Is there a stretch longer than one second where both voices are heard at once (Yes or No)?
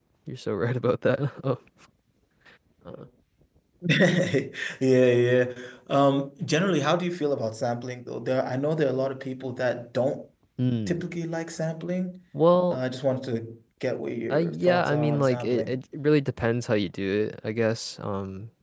Yes